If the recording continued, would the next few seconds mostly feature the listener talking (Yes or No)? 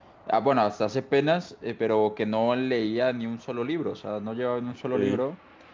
No